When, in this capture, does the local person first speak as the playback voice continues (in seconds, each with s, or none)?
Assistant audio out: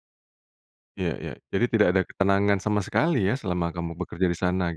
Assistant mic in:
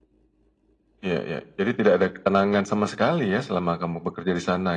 none